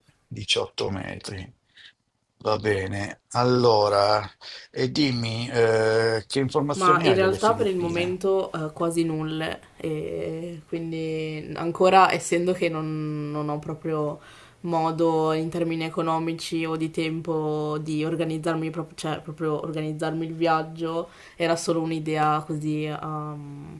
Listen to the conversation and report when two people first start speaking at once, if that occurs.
6.8 s

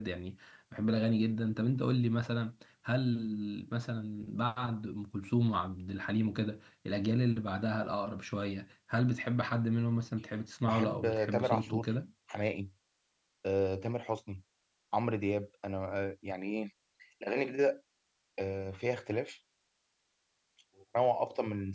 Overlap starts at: 10.7 s

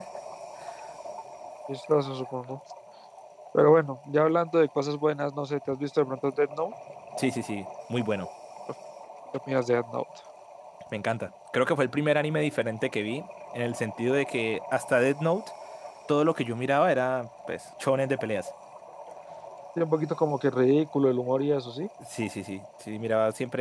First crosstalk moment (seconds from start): none

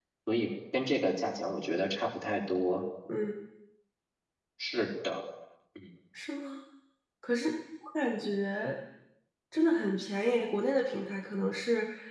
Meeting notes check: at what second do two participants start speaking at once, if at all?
none

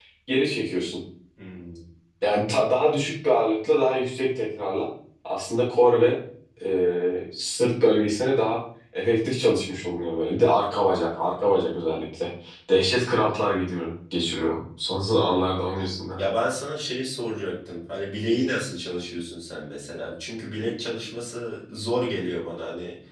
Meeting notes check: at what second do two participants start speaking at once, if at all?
none

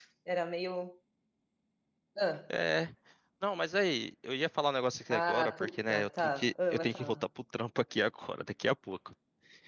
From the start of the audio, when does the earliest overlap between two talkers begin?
5.1 s

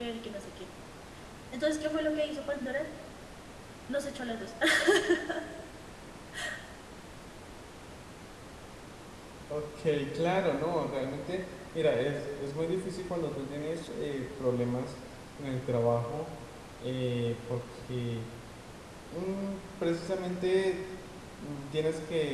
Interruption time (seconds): none

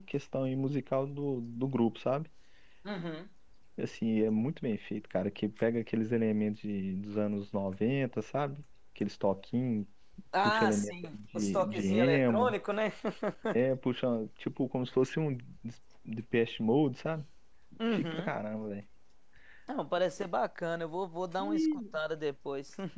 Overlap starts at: 10.4 s

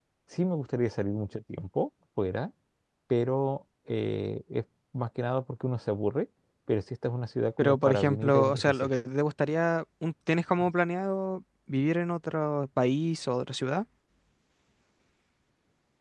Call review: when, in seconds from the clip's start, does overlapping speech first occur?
7.6 s

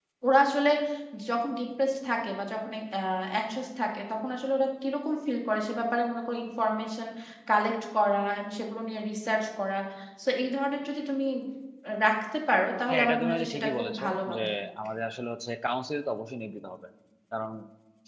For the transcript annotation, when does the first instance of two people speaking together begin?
12.9 s

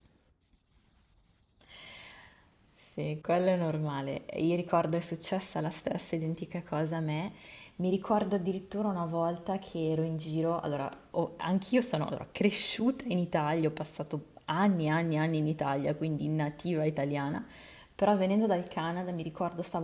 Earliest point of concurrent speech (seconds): none

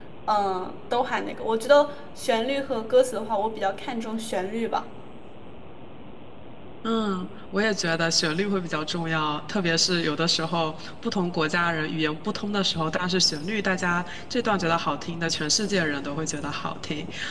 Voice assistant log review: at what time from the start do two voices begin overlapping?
none

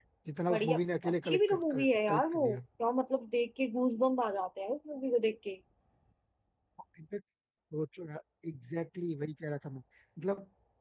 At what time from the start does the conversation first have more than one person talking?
0.5 s

